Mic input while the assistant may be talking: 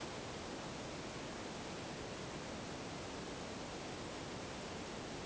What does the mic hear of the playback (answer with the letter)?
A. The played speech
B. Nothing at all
B